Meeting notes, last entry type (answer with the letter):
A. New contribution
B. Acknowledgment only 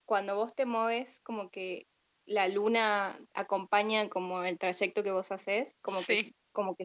B